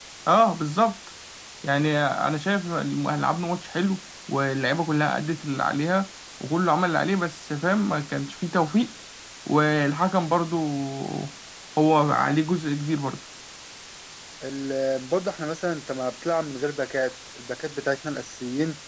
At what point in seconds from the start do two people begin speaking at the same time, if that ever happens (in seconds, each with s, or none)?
none